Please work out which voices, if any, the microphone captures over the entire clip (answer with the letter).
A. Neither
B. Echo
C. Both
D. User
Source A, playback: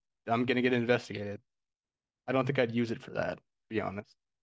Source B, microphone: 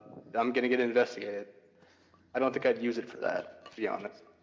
B